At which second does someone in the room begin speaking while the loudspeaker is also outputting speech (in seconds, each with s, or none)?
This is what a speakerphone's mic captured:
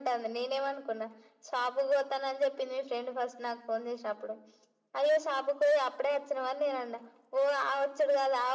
none